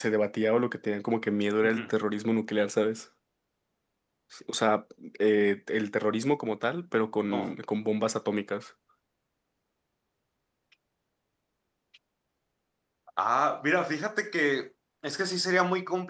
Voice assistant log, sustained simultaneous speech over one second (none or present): none